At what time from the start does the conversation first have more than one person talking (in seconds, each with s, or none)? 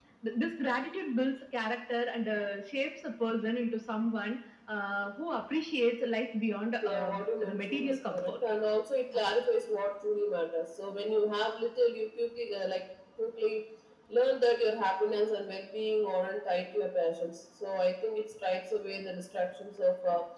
6.8 s